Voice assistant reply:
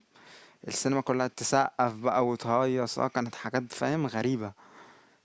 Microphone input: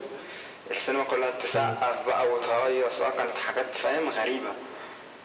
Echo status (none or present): present